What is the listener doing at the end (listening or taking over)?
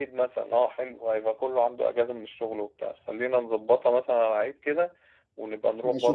taking over